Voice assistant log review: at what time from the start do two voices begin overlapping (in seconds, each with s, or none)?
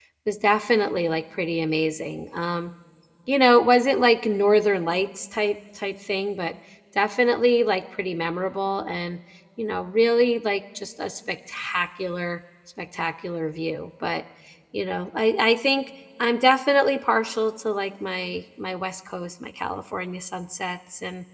none